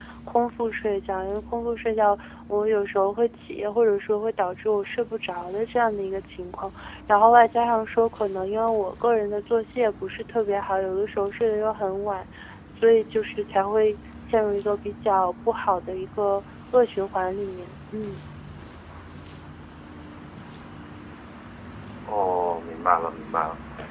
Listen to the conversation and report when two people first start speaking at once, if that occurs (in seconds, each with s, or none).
none